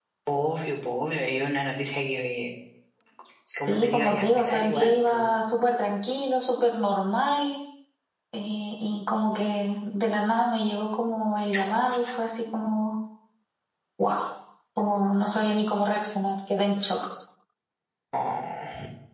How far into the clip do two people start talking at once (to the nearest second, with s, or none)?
4 s